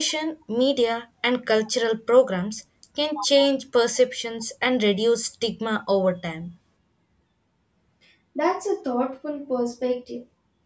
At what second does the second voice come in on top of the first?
none

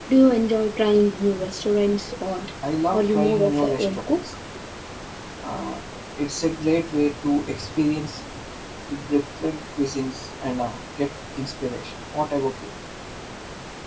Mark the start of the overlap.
2.9 s

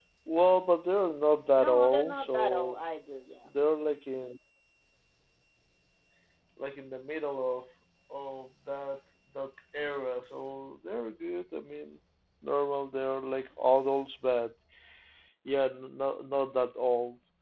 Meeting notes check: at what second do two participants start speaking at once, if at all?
1.6 s

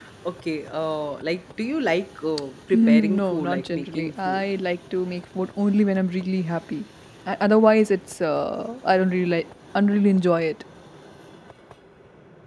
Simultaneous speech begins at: 2.7 s

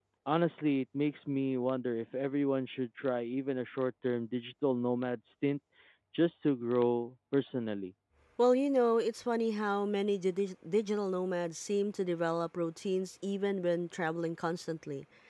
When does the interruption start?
none

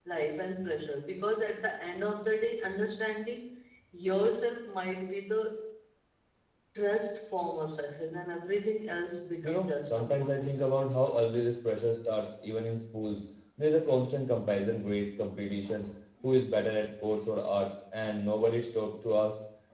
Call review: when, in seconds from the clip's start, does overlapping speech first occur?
9.4 s

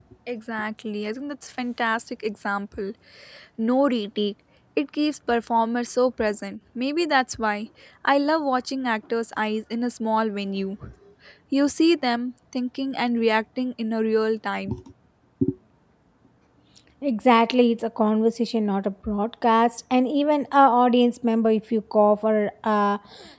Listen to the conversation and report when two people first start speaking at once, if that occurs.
none

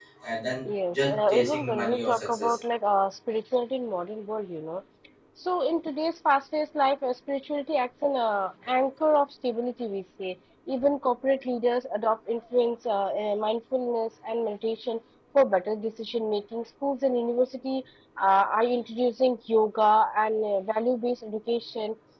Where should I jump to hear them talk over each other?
0.9 s

